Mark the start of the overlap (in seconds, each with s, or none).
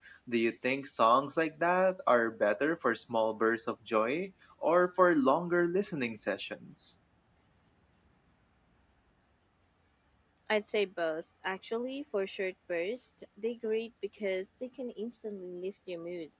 none